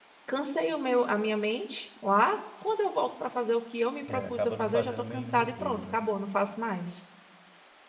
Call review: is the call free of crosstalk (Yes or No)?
No